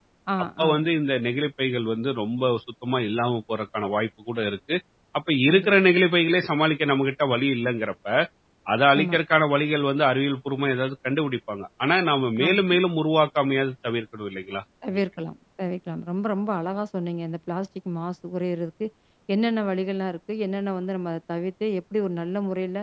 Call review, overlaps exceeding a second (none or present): none